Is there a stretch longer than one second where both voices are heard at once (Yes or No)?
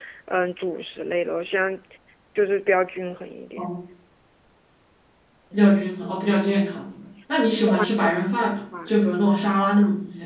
No